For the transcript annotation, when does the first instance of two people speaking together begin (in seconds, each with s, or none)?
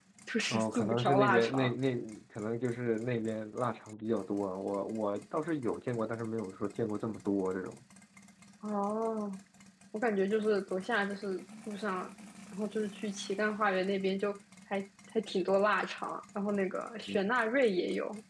0.5 s